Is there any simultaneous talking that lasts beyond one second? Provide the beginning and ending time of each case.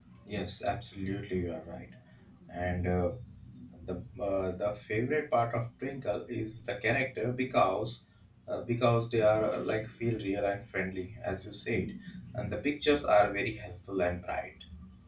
none

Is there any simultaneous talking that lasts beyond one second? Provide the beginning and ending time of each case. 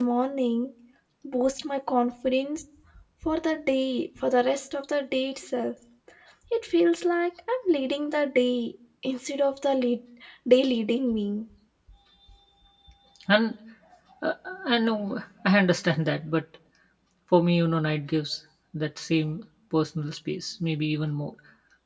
none

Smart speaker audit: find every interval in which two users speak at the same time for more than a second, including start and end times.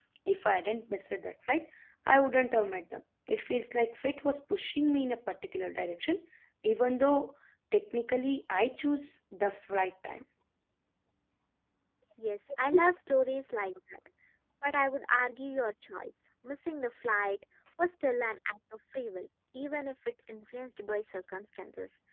none

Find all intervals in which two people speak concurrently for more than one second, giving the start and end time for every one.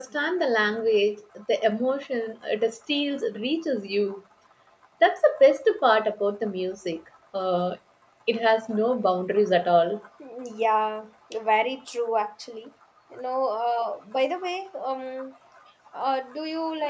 none

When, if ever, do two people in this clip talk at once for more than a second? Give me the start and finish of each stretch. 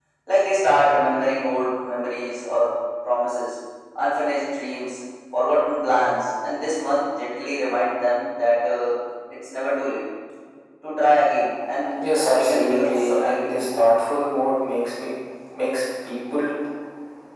12.1-13.6

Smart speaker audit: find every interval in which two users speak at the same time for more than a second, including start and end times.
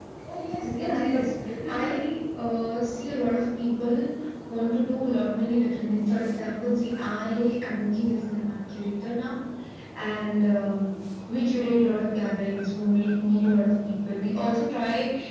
0.6-2.1

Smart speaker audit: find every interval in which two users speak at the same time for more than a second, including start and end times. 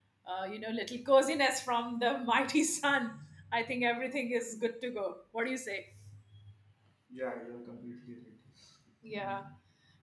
none

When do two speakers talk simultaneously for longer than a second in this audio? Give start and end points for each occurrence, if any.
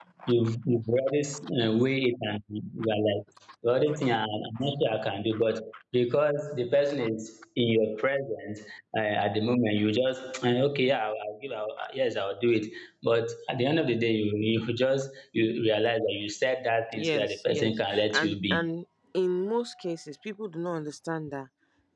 16.9-18.7

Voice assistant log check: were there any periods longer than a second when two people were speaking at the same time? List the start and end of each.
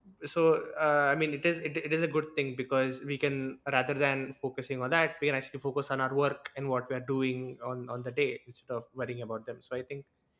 none

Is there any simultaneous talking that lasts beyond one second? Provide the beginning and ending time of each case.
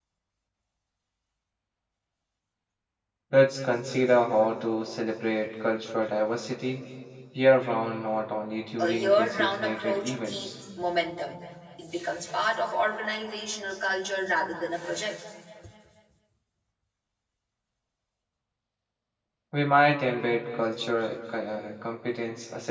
8.8-10.5

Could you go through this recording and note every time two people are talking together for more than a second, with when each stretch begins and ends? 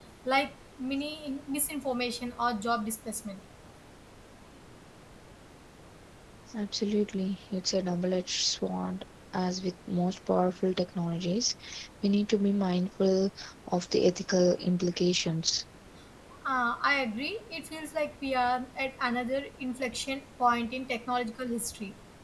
none

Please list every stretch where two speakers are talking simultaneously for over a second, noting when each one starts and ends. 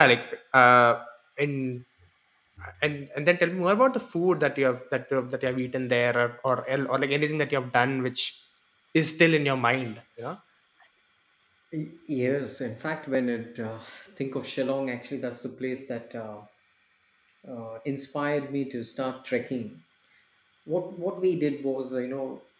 none

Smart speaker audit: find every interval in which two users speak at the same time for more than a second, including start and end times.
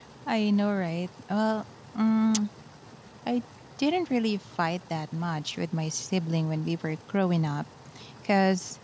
none

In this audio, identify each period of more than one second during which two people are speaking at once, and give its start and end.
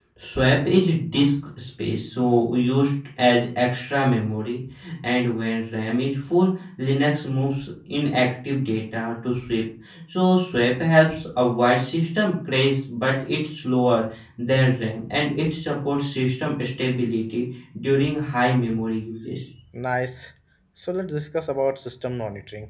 none

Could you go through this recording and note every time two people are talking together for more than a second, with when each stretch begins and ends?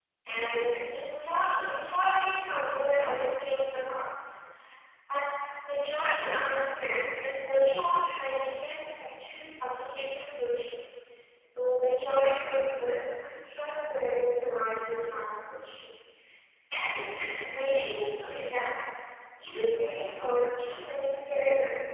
none

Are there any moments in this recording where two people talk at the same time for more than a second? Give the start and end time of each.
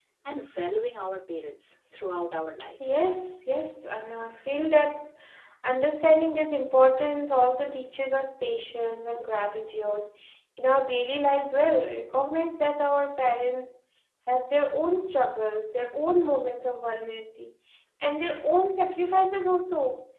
none

